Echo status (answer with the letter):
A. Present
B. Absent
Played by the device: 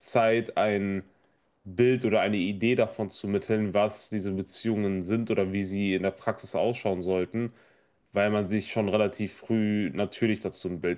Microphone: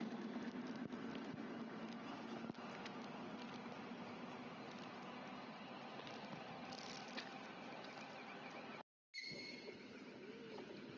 B